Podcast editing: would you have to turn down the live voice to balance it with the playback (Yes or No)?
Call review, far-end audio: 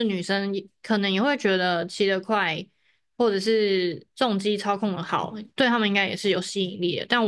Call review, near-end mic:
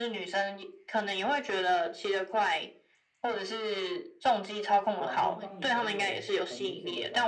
No